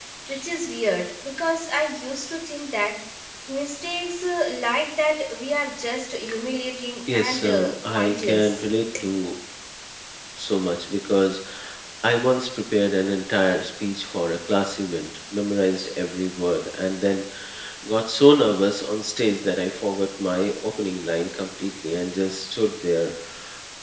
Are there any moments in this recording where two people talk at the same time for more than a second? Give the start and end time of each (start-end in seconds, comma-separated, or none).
7.1-8.7